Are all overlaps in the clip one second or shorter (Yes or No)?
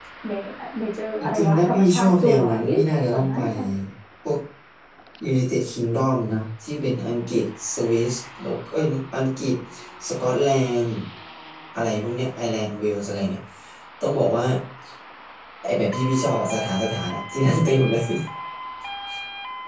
No